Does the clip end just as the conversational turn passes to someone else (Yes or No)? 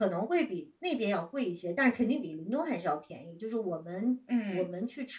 No